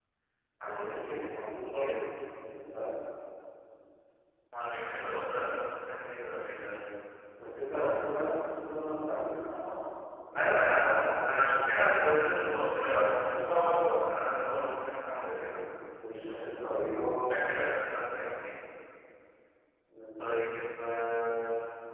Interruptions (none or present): present